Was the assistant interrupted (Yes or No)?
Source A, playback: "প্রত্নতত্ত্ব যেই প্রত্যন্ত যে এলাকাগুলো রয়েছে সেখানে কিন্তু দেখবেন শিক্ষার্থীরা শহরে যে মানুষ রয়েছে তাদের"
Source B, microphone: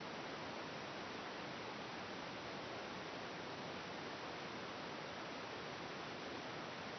No